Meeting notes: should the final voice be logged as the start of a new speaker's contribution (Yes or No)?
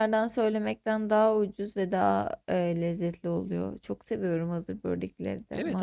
Yes